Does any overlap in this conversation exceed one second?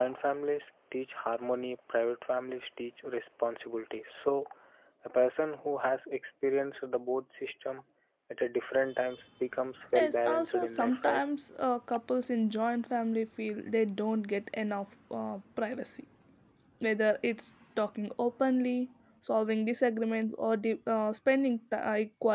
Yes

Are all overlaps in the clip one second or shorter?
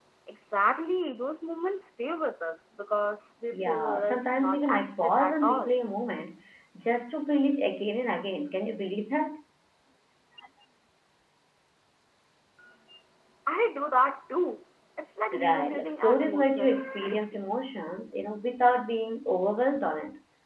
No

